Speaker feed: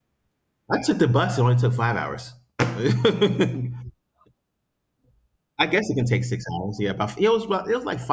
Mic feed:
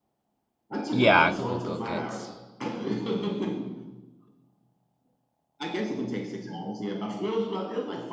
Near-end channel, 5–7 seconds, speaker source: echo only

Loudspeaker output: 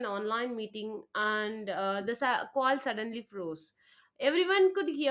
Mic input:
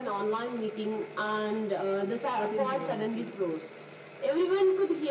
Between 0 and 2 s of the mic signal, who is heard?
echo only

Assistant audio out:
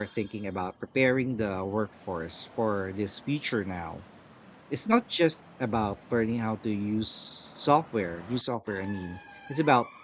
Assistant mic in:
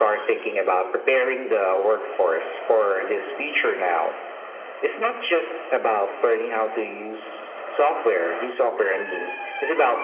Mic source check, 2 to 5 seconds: echo only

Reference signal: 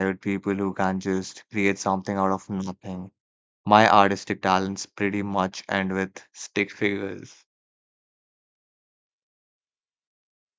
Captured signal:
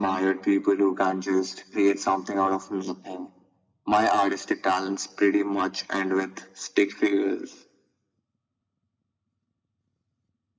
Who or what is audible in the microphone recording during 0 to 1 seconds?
echo only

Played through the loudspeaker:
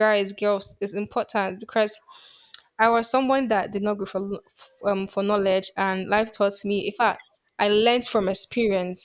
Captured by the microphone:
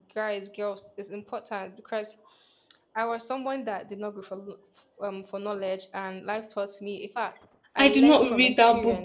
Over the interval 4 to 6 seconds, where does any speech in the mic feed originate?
echo only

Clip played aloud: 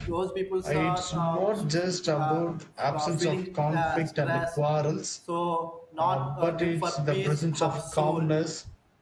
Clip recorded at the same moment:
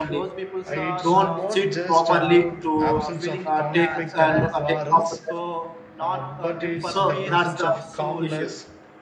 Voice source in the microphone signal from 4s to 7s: both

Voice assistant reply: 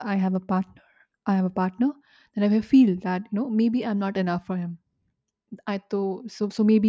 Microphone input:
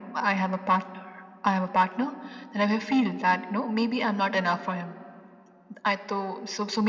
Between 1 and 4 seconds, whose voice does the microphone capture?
echo only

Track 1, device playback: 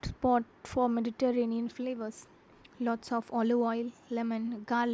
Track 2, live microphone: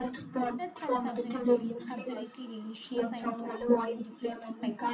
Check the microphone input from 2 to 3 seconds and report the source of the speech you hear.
both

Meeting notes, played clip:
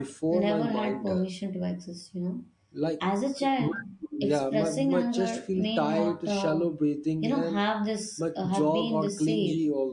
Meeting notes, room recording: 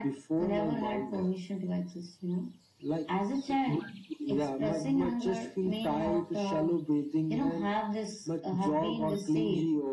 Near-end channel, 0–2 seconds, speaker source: echo only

